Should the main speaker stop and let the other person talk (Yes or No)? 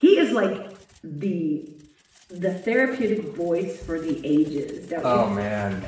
Yes